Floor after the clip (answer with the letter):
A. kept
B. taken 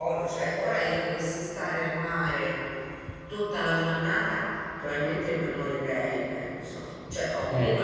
A